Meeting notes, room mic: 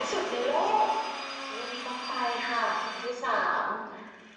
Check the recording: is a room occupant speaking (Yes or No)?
No